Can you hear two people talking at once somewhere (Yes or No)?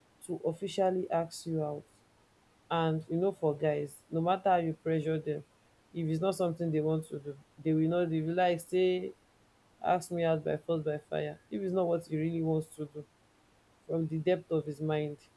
No